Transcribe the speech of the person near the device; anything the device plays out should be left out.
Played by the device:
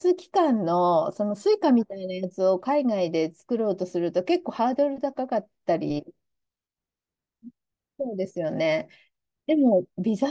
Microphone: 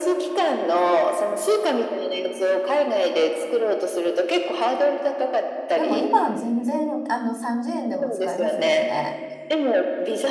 でも今は全然、あの、30円でも使えますもんね。

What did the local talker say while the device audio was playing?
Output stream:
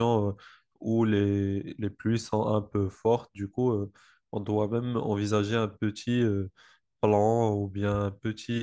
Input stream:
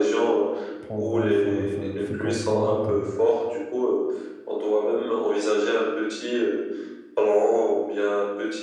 prendront sa, sa- ses constantes,

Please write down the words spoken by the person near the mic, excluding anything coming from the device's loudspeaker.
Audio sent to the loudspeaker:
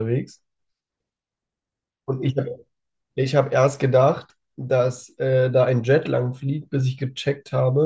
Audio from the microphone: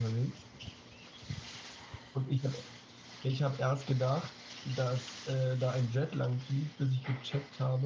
none

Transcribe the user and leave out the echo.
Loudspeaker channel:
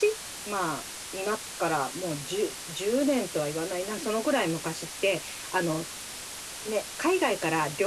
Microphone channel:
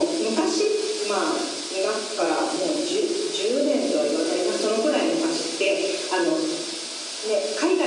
none

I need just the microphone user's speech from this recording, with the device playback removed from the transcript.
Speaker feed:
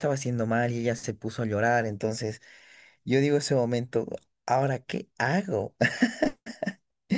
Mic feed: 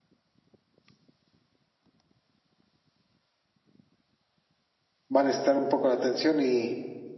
va a necesitar un poco la atención y,

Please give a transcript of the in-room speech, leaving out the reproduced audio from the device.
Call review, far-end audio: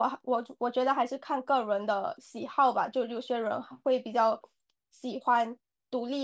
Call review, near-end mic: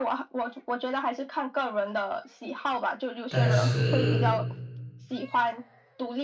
但是

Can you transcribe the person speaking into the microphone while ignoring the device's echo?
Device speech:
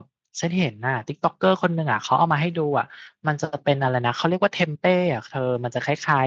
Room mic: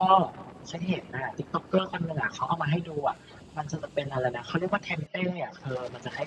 none

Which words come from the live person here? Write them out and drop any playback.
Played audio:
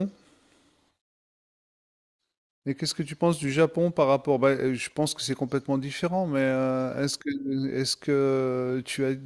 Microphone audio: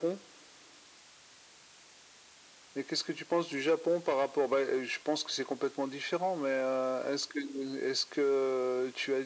none

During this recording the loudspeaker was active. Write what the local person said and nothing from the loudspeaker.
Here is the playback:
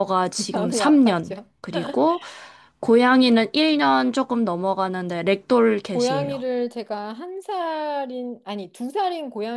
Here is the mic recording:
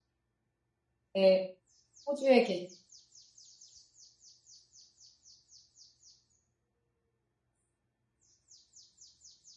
네, 호주에 계신.

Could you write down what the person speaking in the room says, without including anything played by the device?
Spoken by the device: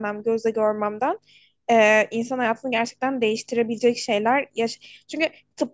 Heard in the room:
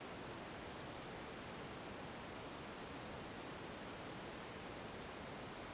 none

